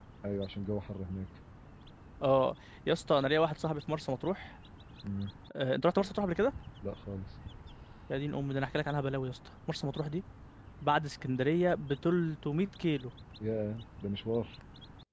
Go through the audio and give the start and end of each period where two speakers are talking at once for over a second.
none

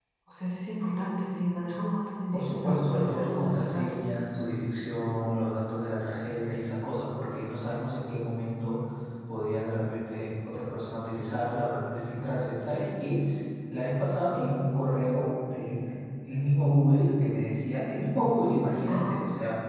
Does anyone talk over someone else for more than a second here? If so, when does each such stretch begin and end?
2.3-4.0

